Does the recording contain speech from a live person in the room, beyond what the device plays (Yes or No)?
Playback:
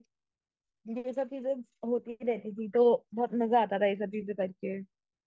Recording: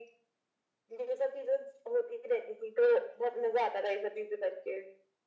No